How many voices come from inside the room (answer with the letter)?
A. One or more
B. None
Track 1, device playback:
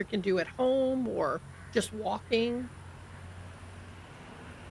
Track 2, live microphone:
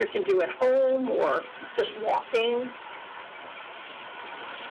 B